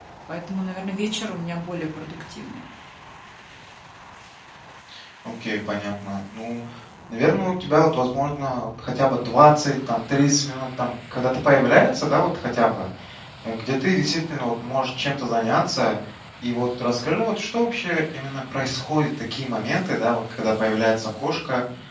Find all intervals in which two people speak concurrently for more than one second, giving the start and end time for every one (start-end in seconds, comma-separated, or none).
none